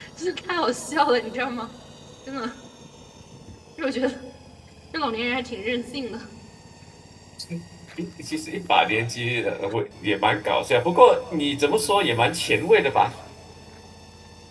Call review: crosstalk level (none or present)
none